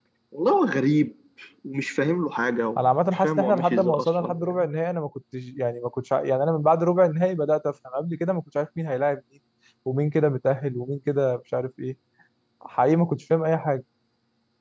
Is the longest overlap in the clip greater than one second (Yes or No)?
Yes